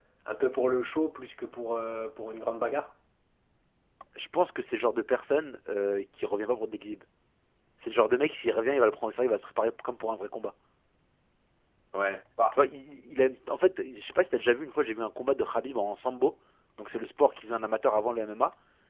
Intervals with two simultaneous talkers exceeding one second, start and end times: none

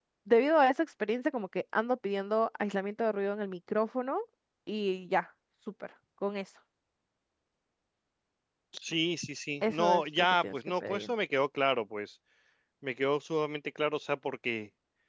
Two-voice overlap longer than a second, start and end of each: 9.6-11.1

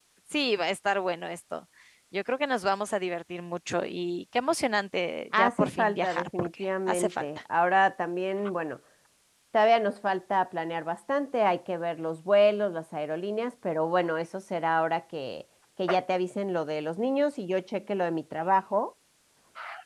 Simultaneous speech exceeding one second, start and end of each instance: 5.4-7.2

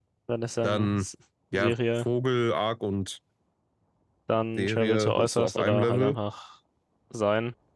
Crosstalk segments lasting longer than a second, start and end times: 4.6-6.2

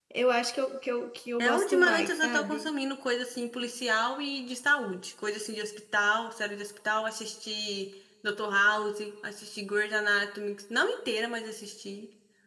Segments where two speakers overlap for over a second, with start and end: 1.4-2.7

